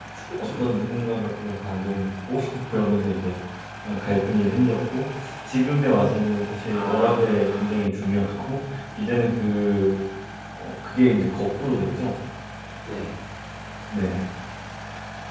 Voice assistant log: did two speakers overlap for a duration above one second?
Yes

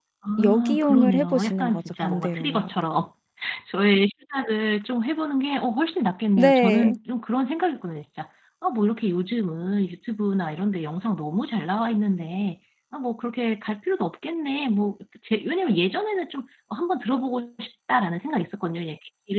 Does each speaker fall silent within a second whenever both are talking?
No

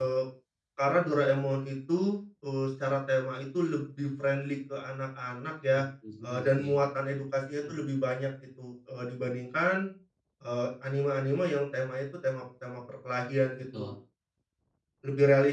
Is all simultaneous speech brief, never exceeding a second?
Yes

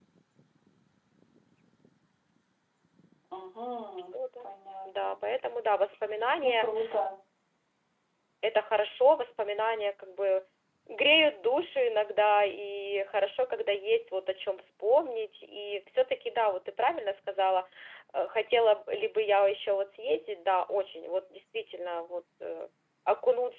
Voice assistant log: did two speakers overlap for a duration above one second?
No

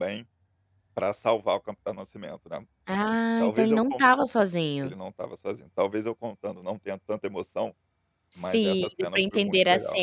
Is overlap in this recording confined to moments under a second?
No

